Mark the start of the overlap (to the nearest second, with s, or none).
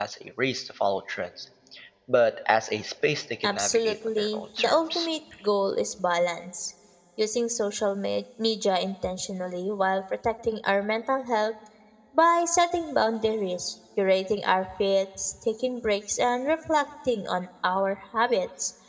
3 s